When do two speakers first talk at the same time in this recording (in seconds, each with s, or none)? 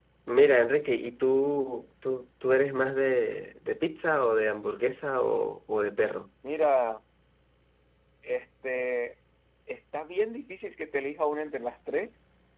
none